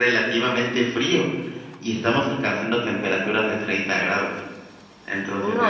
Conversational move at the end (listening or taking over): taking over